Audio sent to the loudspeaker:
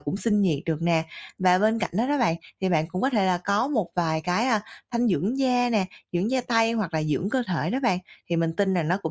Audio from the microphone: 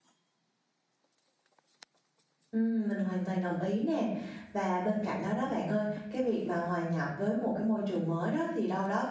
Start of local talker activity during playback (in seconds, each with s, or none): 2.5 s